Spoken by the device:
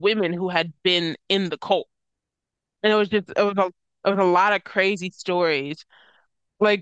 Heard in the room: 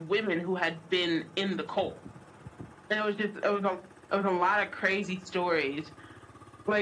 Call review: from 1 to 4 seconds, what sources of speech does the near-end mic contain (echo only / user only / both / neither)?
echo only